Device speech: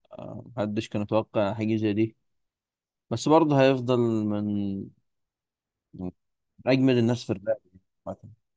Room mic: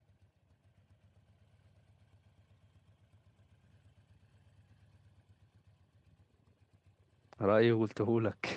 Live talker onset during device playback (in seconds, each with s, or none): 7.4 s